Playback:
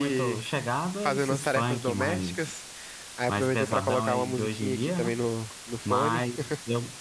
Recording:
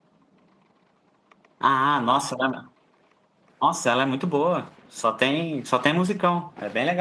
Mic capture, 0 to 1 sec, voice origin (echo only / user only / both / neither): neither